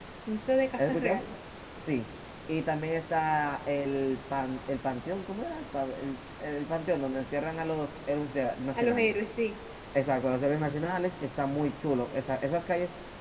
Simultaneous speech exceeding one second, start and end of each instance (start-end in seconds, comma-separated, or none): none